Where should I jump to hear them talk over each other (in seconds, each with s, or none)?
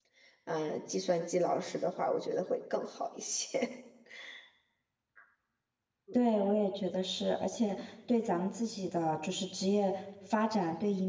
none